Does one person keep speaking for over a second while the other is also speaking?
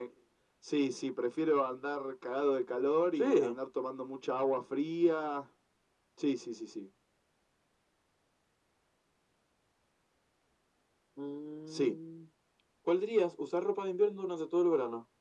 No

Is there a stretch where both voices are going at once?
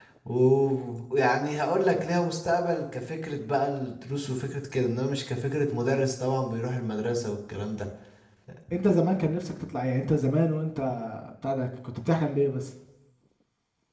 No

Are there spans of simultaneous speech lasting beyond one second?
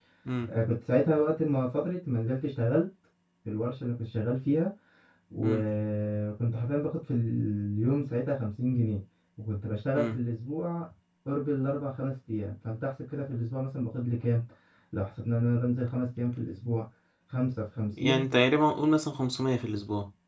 No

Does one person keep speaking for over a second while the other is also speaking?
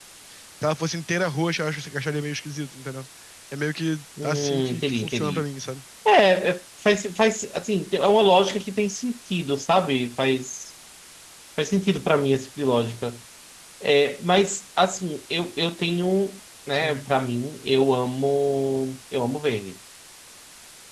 Yes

